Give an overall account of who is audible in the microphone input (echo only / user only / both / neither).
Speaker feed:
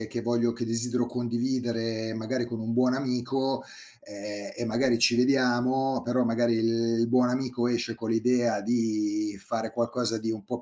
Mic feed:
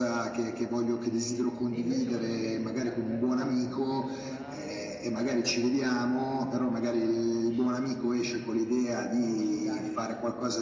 both